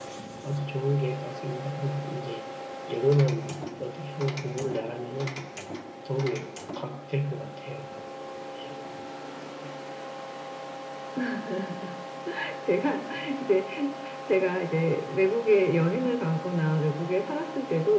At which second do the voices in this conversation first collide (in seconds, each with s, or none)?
none